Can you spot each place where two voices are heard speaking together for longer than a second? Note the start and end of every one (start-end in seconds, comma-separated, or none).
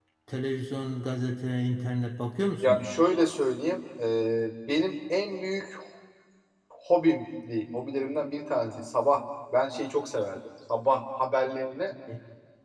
none